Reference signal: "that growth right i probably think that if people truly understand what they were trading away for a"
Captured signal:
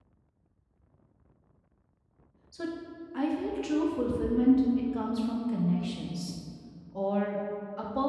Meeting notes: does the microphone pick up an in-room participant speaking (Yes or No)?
Yes